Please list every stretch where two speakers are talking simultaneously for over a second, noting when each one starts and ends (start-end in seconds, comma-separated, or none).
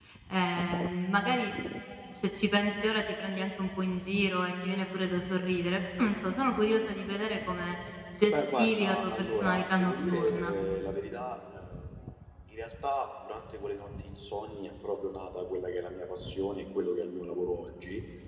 8.3-10.5